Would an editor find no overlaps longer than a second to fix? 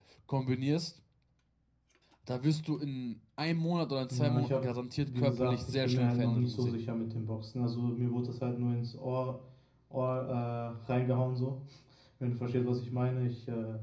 No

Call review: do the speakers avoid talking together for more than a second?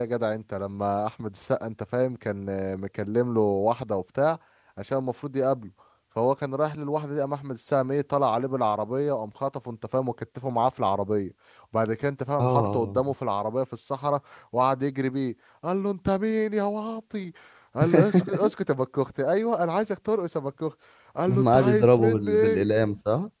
No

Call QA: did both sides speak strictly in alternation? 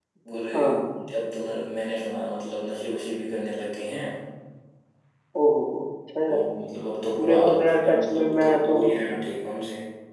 No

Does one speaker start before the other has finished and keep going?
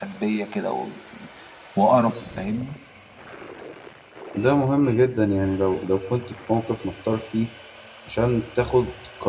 No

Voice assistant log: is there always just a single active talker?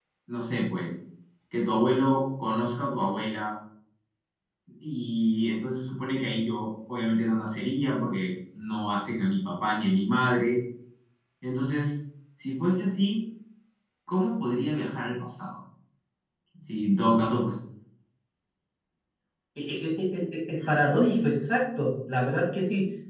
Yes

